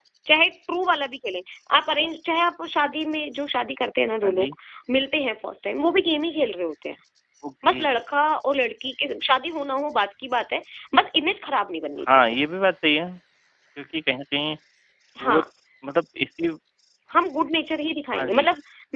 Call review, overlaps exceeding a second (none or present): none